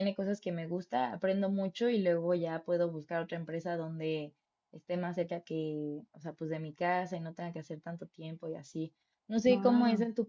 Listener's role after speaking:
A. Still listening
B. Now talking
A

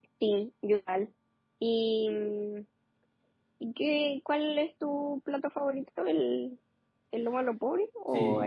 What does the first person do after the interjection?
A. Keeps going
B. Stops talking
B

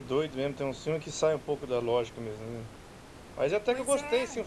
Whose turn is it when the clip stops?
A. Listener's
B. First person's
B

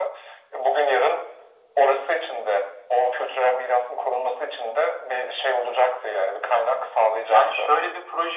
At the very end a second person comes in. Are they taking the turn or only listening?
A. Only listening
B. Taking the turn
B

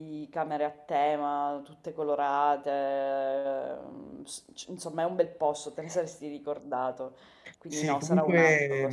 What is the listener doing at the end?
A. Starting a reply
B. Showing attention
A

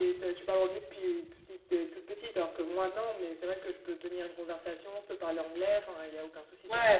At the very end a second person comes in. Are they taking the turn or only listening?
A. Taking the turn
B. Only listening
A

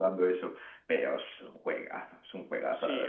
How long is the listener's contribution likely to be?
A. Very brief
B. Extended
B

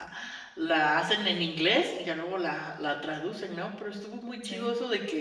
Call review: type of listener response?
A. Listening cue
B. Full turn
A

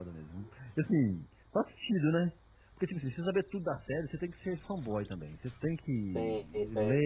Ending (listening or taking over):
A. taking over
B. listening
B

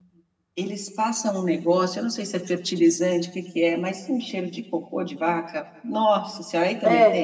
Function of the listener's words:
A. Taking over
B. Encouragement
A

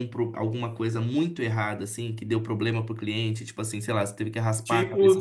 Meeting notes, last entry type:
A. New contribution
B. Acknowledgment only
A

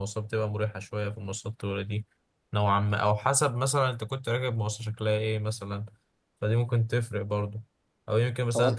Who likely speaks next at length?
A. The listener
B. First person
B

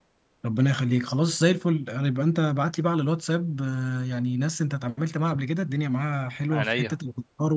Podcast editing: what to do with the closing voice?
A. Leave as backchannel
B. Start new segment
A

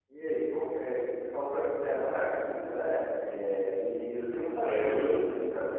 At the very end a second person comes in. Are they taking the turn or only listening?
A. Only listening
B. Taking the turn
A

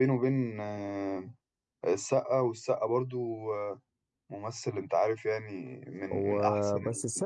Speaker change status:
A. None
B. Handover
B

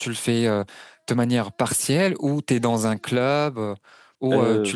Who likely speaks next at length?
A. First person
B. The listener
B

